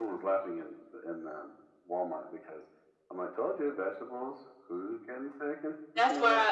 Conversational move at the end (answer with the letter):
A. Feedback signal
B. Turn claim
B